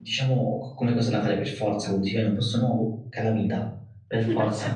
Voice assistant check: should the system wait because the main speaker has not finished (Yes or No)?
No